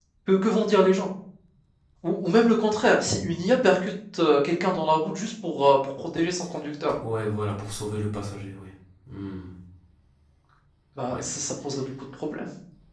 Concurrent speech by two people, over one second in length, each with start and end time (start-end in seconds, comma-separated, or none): none